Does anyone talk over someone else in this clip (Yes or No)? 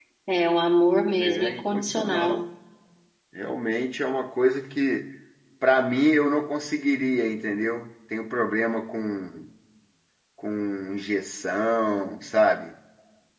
Yes